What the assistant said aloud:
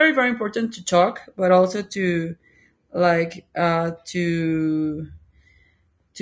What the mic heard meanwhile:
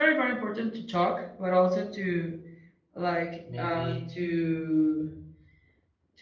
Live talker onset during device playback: 3.4 s

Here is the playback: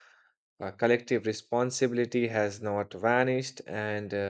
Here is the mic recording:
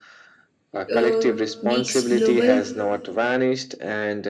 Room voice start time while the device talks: 0.9 s

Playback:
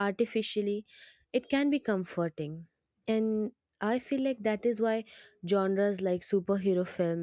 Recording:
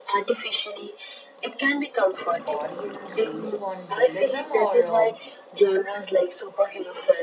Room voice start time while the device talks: 2.5 s

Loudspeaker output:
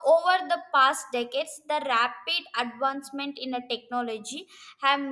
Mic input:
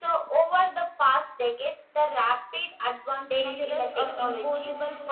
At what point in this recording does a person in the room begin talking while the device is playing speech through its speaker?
3.3 s

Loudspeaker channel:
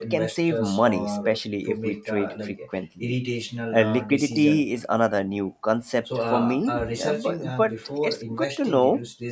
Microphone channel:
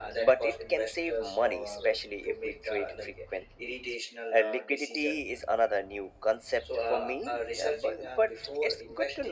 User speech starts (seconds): none

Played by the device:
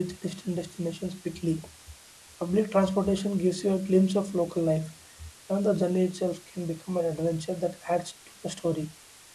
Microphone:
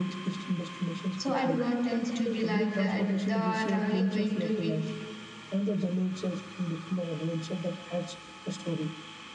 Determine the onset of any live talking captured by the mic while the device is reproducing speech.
1.2 s

